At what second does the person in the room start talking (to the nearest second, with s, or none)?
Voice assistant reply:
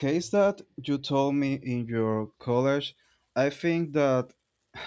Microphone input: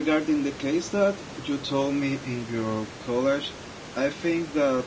none